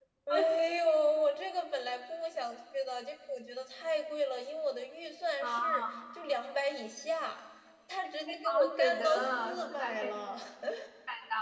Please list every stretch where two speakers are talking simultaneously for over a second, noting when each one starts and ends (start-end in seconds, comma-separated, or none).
8.0-10.1